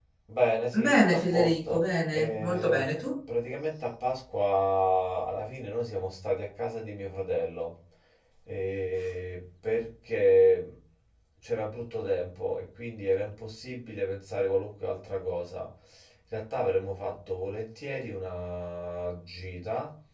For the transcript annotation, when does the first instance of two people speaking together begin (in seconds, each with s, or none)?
0.8 s